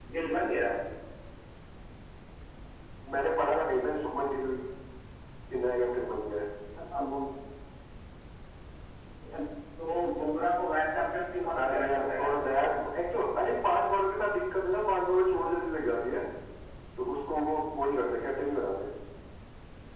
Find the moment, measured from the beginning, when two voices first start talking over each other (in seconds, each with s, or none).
11.4 s